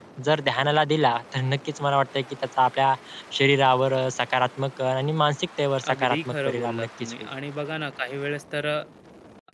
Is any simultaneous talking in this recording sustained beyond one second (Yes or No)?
Yes